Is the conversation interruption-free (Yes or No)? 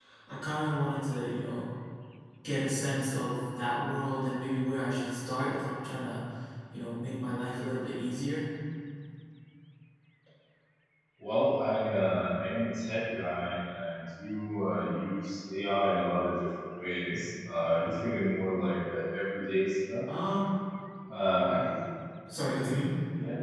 Yes